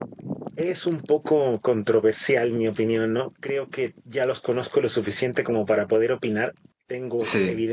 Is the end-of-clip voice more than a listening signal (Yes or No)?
No